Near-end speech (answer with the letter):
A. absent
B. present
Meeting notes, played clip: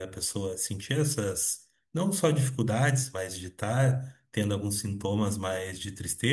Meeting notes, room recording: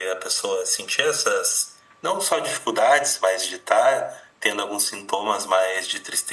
A